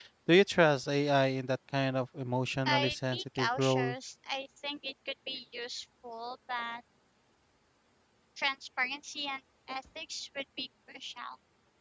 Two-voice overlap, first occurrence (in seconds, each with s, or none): 2.6 s